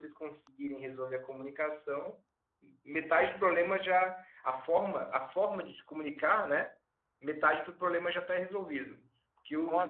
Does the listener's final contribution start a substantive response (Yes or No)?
No